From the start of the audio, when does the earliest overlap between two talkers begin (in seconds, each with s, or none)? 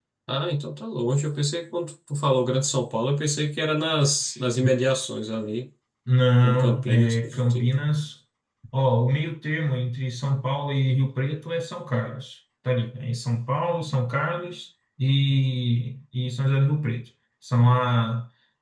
6.4 s